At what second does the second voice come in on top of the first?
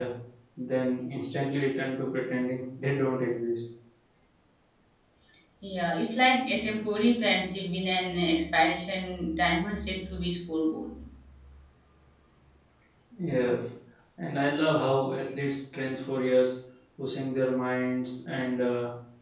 none

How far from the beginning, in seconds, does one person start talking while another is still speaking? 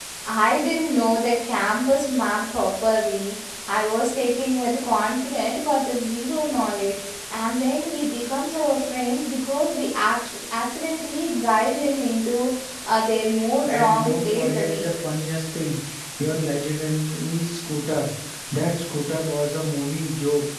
13.7 s

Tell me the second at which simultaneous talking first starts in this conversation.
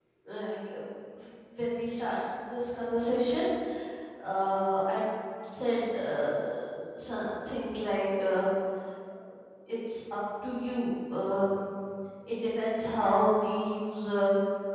none

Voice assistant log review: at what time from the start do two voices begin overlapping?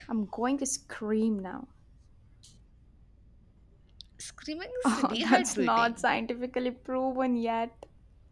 4.8 s

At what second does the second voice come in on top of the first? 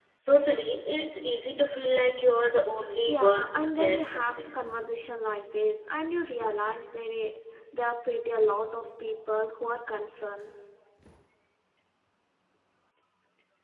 3.1 s

